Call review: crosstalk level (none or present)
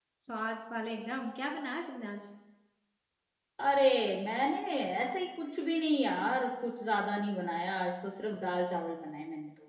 none